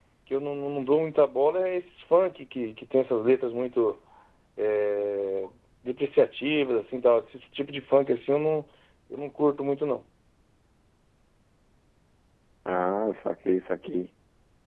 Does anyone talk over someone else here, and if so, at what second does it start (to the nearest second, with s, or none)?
none